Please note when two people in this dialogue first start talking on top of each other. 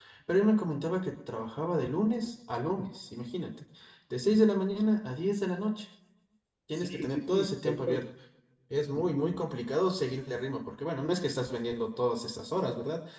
6.8 s

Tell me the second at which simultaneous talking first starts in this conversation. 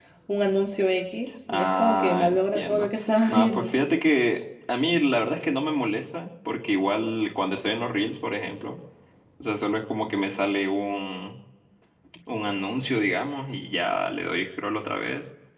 1.5 s

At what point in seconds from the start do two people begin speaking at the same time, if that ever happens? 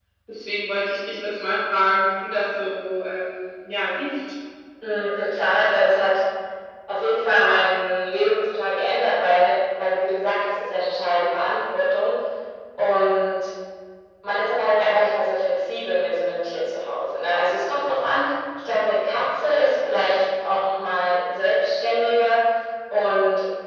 none

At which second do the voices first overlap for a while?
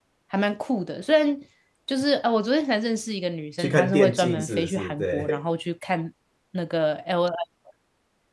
3.6 s

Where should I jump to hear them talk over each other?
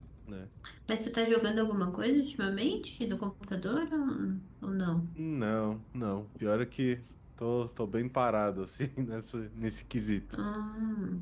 none

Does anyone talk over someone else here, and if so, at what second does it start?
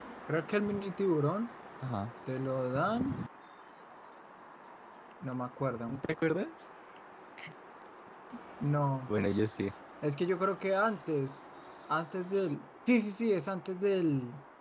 none

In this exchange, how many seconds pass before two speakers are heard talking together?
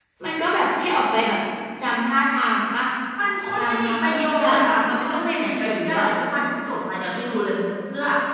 3.6 s

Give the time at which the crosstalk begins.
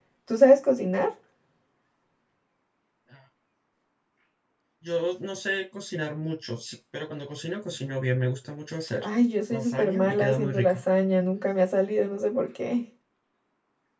9.5 s

